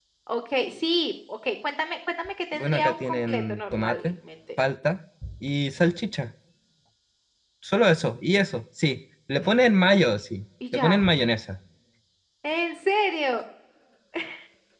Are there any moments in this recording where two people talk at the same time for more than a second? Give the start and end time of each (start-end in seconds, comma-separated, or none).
2.5-4.1